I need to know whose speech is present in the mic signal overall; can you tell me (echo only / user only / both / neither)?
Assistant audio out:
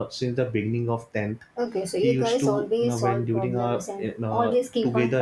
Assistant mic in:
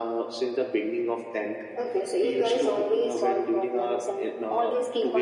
echo only